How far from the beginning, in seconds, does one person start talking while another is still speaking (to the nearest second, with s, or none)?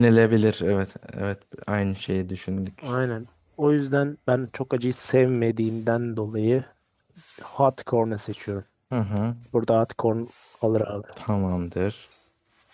none